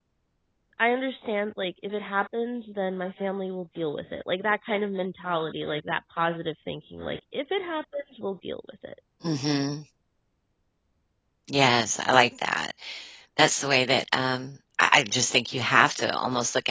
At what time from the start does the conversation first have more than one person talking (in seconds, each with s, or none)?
none